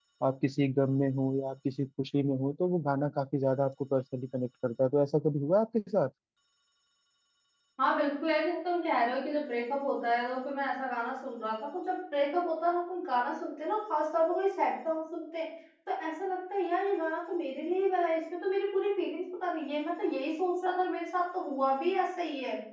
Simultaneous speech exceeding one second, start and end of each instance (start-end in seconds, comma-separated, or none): none